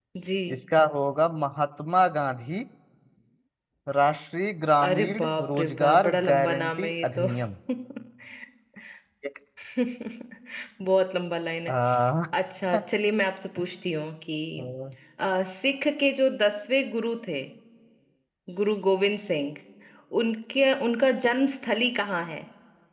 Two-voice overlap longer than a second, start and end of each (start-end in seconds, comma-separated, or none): 4.9-7.3